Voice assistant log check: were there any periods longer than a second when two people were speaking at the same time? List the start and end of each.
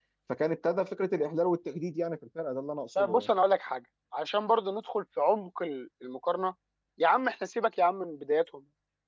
none

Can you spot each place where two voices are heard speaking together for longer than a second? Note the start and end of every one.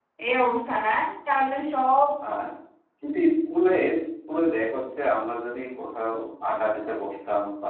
none

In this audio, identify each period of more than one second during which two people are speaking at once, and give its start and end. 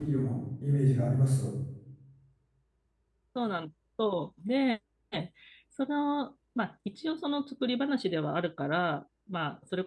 none

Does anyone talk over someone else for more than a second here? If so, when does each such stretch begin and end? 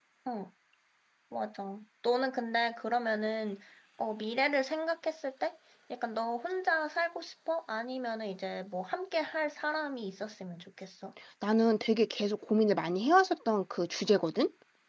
none

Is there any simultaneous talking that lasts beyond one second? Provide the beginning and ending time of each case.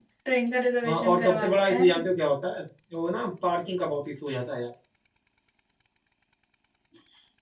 0.8-2.0

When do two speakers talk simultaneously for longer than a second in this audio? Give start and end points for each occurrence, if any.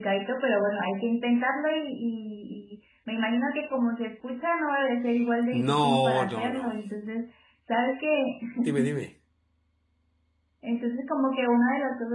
5.5-6.8

